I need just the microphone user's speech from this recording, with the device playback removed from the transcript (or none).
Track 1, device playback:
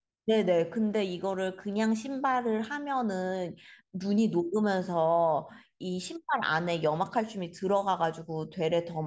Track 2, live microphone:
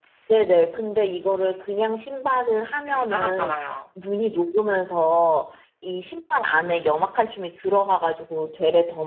네. 따갑잖아요.